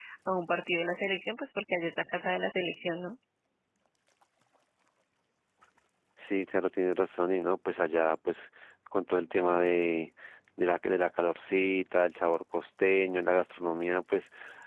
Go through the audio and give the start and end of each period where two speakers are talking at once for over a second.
none

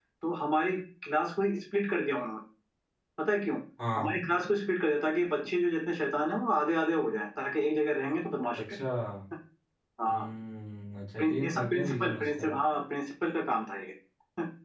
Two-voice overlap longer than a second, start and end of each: 11.2-12.5

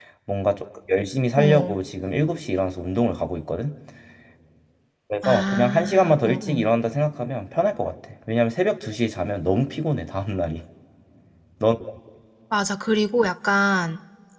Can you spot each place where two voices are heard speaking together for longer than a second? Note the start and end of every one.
5.2-6.7

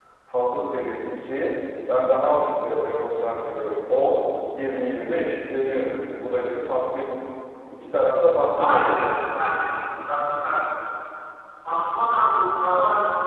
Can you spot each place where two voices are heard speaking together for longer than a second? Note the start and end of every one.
none

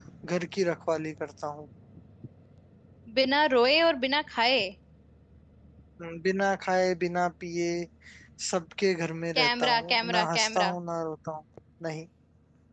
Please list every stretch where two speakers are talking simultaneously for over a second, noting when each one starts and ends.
9.4-10.7

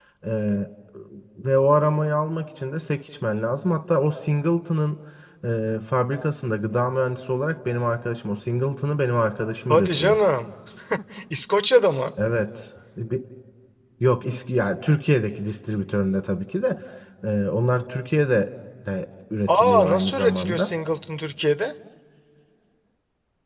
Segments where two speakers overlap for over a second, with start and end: 19.5-20.8

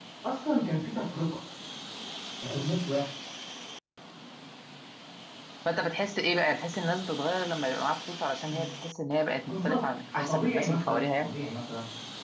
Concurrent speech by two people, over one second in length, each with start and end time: 9.5-11.3

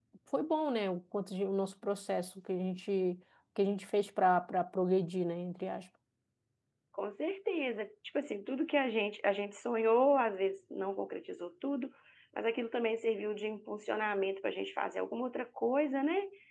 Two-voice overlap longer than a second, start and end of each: none

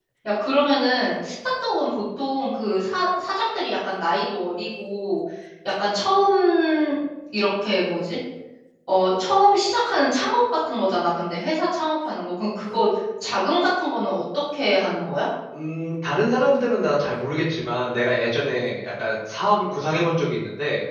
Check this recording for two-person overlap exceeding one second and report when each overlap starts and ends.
none

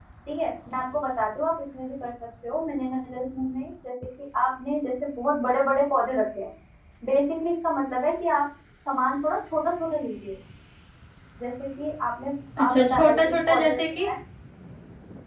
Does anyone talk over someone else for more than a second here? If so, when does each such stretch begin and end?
12.6-14.1

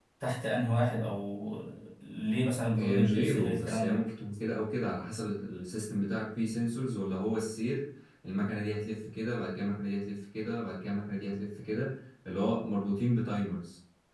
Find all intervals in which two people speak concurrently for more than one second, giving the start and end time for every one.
2.8-4.0

